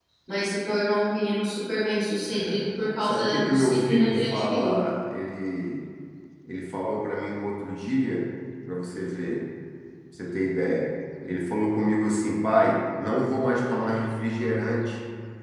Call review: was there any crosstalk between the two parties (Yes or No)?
Yes